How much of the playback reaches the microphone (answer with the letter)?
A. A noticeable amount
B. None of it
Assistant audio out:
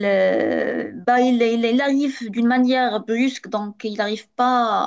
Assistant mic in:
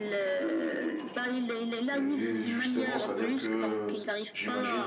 A